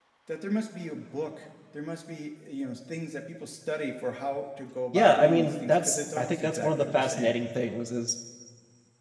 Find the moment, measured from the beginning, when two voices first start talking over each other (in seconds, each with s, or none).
4.9 s